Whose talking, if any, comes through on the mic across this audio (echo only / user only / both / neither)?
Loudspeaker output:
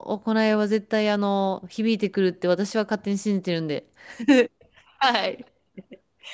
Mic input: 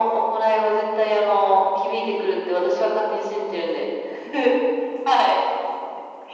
echo only